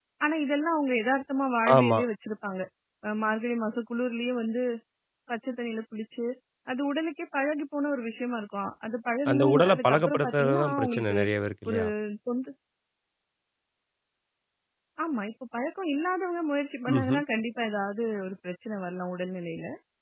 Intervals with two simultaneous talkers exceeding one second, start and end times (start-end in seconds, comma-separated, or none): 9.3-11.2